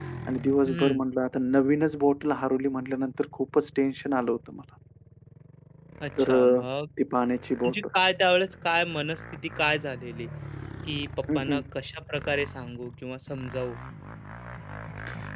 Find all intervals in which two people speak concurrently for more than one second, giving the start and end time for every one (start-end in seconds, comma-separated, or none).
none